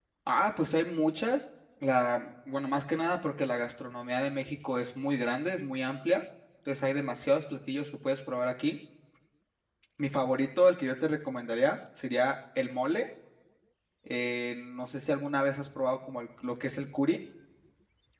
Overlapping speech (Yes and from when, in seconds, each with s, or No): No